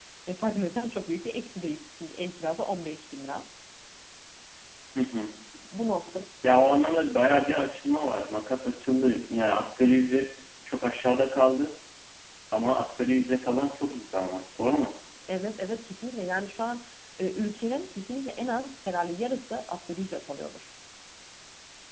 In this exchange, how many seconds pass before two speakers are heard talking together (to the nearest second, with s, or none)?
none